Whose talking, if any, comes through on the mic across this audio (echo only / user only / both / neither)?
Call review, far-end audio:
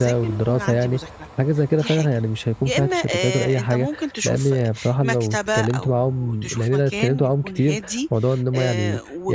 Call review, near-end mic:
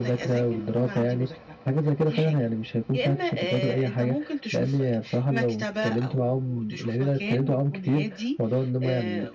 echo only